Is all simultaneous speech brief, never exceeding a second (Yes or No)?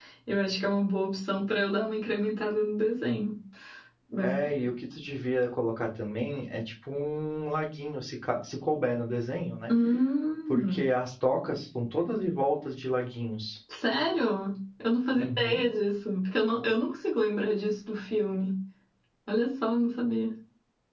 Yes